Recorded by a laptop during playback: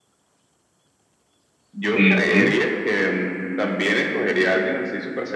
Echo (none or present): present